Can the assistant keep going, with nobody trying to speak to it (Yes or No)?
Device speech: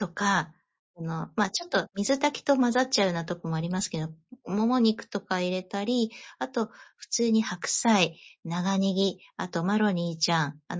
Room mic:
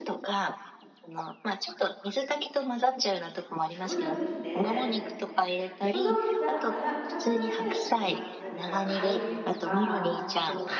No